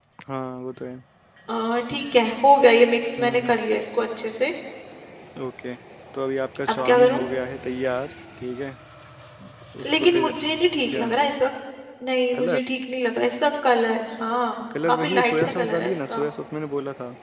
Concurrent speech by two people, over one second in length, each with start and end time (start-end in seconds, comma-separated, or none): 14.9-16.2